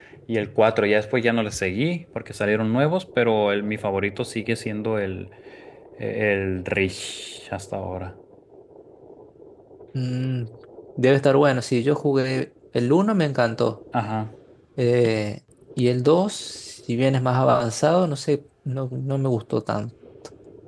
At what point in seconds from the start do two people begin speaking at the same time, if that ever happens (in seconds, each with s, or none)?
none